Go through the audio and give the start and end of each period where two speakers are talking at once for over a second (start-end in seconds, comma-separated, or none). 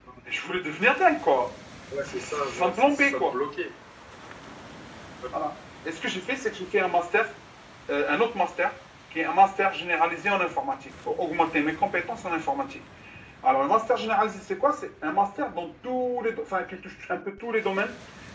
2.1-3.3